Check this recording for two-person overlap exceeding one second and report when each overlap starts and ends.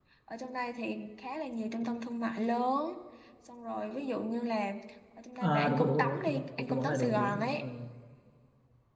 5.4-7.7

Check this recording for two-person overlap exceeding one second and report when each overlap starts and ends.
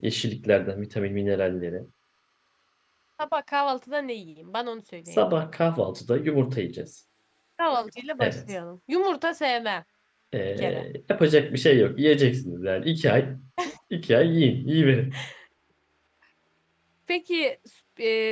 none

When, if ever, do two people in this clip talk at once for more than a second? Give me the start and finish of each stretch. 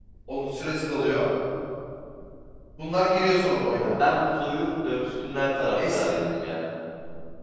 none

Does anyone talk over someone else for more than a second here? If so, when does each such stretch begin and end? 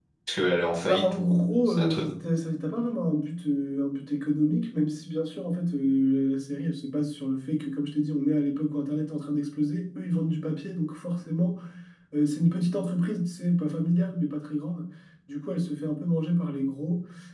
0.8-2.1

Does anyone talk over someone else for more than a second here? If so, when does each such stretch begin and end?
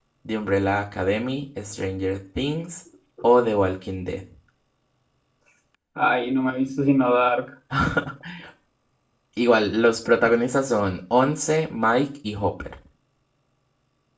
none

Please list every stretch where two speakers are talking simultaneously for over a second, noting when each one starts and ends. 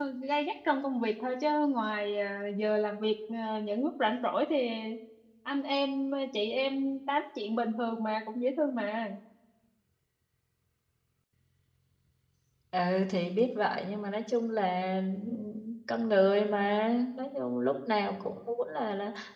none

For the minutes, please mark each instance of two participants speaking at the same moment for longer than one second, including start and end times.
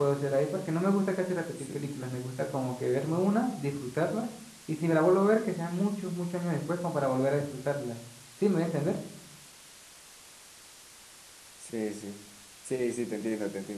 none

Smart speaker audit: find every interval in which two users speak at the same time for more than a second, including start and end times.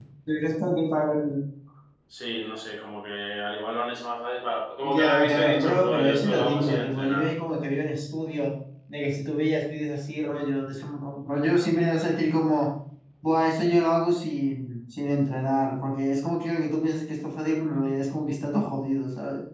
4.8-7.3

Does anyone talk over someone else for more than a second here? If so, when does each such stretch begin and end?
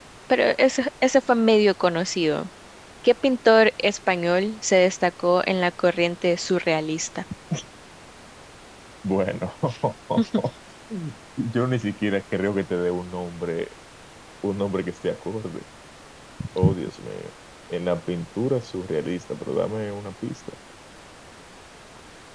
none

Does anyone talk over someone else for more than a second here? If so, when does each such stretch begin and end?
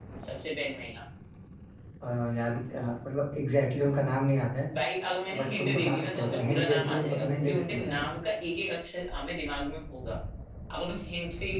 5.3-8.0

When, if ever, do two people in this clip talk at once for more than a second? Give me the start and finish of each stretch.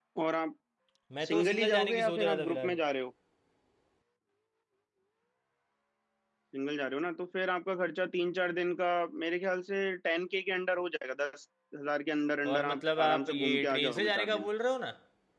1.3-2.8, 12.5-14.5

